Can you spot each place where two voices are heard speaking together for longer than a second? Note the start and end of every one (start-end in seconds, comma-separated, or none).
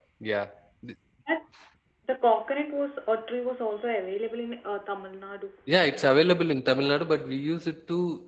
none